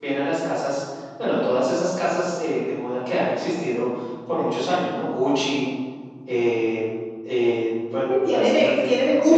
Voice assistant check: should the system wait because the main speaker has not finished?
No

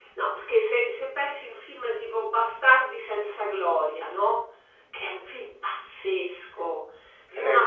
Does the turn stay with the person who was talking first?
Yes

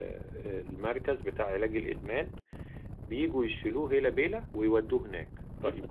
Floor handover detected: Yes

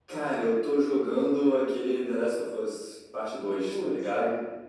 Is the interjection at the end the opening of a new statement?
Yes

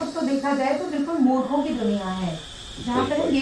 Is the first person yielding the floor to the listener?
No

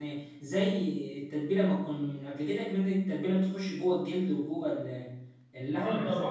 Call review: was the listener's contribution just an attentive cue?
No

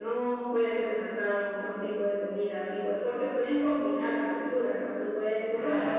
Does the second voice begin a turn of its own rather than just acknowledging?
No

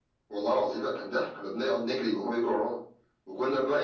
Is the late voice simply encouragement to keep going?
Yes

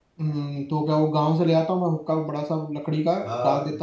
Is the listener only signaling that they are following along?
No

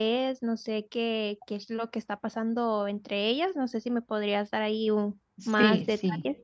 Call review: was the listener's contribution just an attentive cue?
No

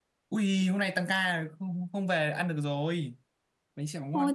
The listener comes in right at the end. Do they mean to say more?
Yes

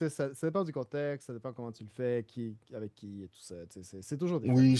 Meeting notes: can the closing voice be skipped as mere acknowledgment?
No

